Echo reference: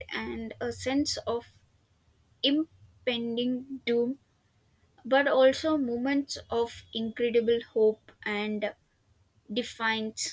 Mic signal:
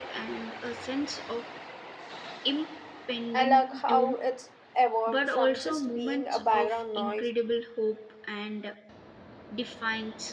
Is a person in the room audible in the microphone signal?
Yes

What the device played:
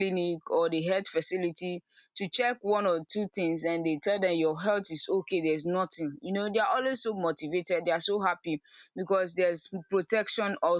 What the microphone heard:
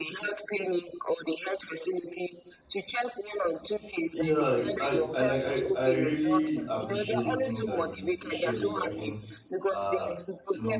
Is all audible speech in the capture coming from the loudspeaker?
No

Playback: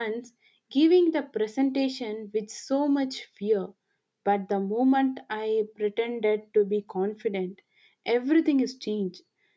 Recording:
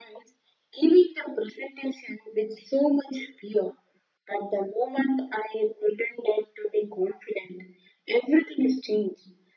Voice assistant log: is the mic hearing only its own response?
Yes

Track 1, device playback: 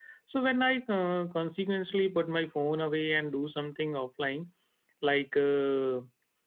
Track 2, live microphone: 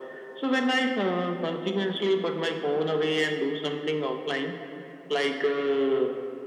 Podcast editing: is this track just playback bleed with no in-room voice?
Yes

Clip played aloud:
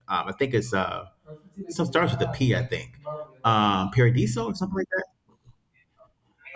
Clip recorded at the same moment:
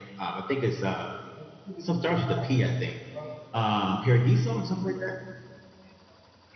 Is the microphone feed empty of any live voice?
Yes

